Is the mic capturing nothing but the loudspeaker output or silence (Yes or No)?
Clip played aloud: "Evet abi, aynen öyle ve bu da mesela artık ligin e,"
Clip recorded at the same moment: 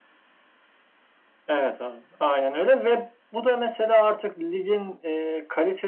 Yes